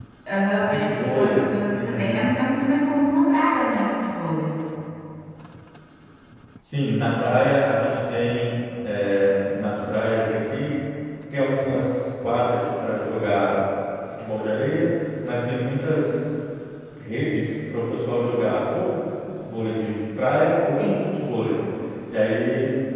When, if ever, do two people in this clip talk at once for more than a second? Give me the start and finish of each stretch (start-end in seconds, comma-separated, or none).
0.7-2.1